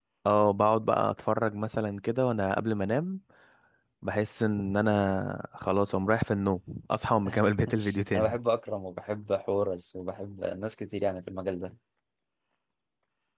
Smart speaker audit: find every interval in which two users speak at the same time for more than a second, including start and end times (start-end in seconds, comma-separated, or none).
none